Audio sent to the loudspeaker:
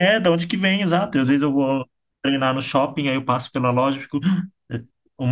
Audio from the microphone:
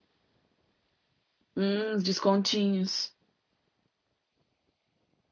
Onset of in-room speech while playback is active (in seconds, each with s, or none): 1.6 s